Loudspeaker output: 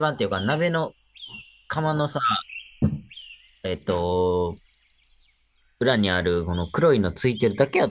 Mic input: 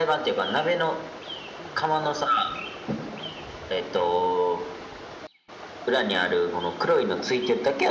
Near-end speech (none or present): none